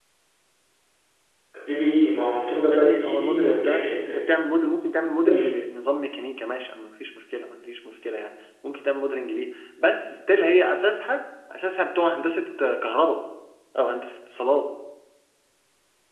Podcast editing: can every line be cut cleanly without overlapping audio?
No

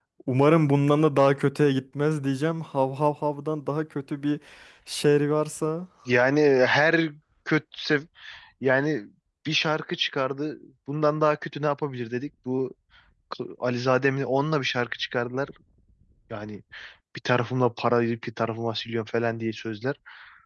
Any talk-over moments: No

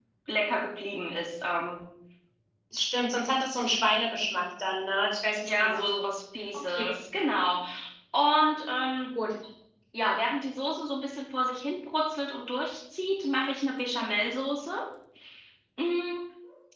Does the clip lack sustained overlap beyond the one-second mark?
Yes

